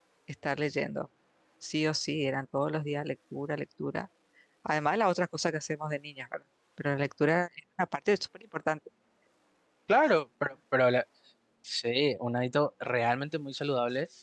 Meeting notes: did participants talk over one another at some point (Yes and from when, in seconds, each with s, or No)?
No